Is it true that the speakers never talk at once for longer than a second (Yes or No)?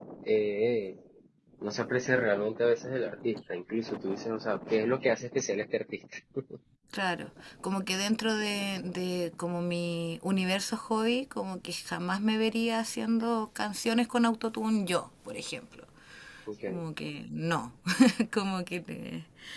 Yes